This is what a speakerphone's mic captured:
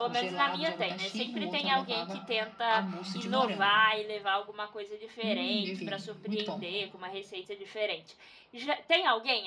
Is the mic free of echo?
No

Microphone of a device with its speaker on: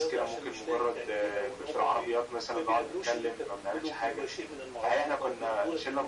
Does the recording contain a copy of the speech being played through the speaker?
Yes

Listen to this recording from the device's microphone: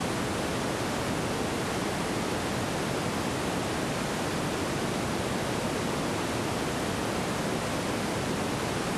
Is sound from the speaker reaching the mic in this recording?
No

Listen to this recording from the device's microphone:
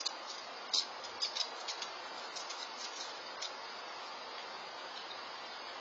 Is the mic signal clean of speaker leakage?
Yes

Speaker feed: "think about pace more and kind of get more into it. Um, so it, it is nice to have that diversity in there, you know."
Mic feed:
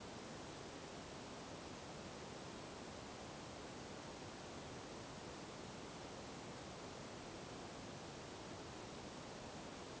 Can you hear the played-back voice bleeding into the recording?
No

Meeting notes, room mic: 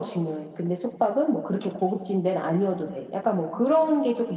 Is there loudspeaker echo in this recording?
Yes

